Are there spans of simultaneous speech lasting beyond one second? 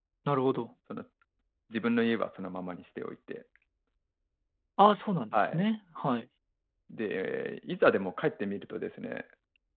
No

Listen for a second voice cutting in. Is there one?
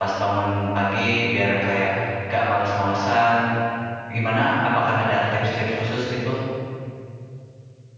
No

